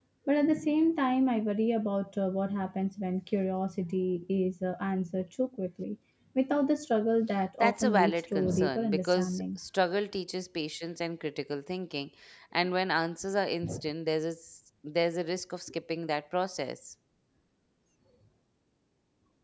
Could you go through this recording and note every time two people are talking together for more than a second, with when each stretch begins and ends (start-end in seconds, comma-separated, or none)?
7.6-9.4